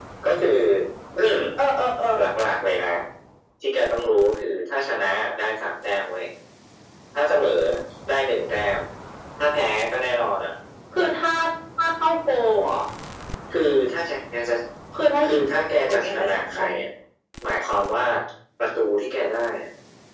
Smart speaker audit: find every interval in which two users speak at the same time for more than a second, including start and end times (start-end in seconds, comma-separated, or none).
15.2-16.8